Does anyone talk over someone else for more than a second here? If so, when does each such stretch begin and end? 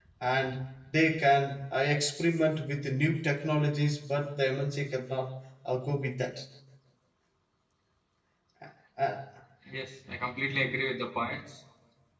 none

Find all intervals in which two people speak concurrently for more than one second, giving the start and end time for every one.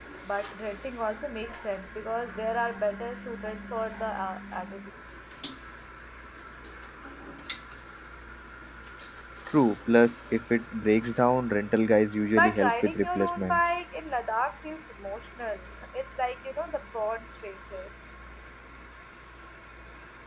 12.4-13.6

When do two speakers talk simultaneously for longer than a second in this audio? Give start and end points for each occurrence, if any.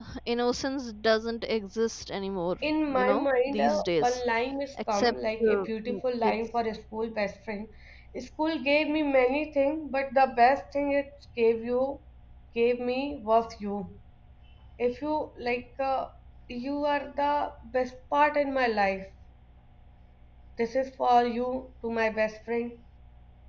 2.9-4.2, 4.9-6.4

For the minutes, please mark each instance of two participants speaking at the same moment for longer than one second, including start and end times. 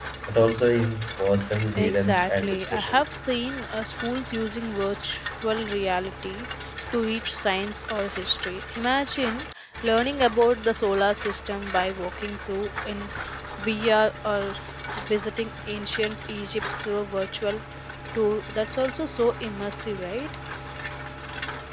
1.8-3.0

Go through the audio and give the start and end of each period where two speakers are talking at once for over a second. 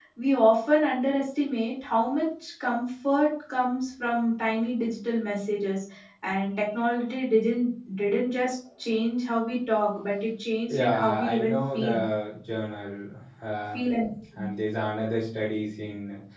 10.7-12.0

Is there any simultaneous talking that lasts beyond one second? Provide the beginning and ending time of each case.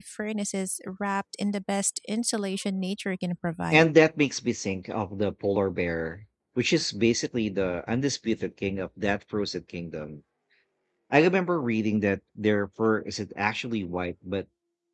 none

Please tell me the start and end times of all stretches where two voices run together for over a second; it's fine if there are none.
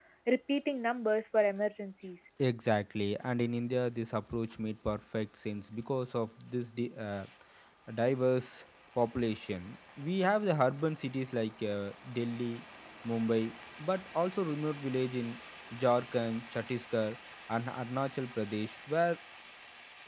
none

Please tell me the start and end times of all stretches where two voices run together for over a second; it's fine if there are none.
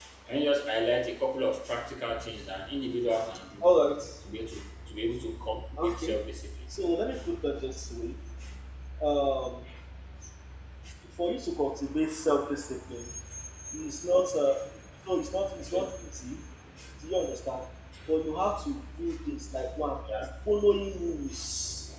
none

